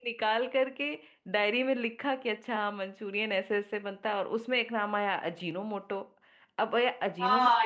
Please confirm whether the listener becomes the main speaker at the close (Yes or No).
Yes